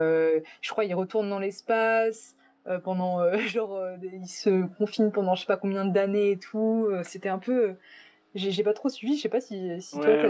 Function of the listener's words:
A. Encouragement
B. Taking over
B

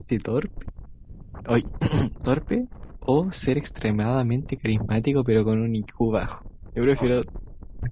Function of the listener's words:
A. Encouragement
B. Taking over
B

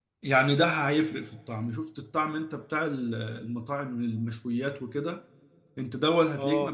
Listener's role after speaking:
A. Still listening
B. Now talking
A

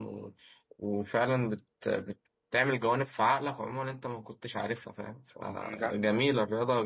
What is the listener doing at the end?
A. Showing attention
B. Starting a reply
A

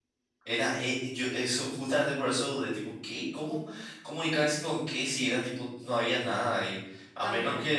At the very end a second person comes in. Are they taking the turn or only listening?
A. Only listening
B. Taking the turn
A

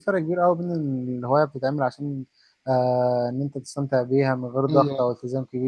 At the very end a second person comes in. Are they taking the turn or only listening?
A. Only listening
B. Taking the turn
A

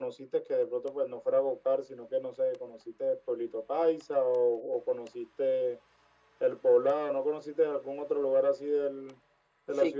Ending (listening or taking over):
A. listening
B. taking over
B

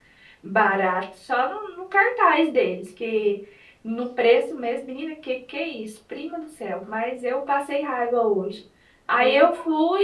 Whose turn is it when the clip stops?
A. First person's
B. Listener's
A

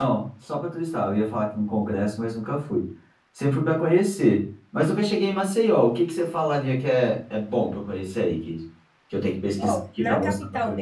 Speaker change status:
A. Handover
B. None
A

